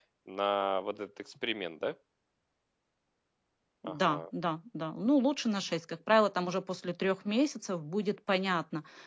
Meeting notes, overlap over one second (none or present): none